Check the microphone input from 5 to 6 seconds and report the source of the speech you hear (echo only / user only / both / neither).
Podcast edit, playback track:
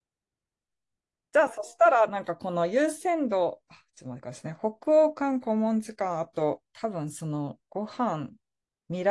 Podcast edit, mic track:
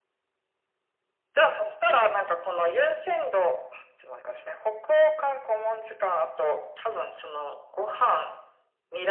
echo only